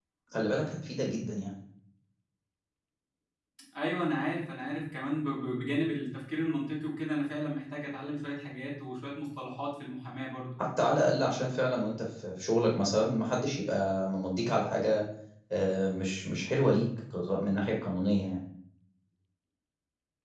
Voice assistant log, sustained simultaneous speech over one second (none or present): none